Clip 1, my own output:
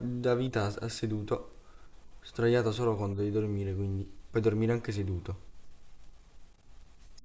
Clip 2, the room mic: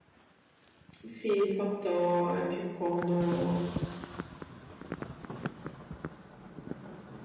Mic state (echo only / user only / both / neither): user only